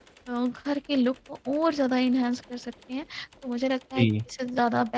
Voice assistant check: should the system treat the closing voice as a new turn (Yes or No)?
No